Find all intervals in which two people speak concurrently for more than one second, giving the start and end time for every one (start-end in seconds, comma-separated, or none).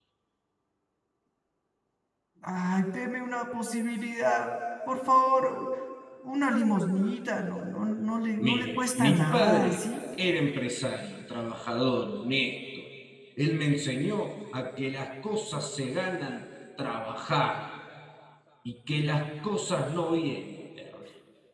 8.4-9.8